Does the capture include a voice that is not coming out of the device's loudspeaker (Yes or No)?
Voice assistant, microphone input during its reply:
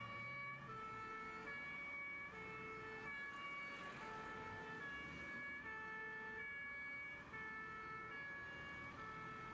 No